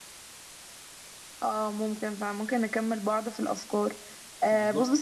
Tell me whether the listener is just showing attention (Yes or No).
Yes